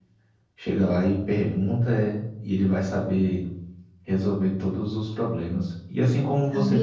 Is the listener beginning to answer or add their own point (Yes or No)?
No